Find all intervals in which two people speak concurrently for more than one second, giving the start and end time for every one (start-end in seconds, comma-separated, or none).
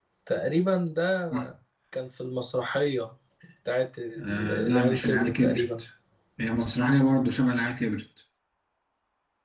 4.2-5.6